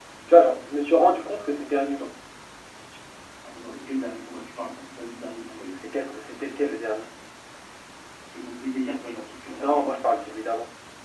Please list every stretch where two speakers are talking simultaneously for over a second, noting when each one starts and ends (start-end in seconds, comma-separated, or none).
none